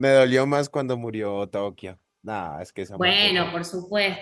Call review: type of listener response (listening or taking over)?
taking over